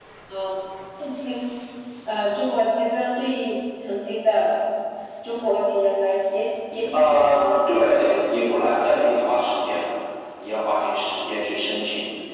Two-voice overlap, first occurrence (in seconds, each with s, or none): 6.9 s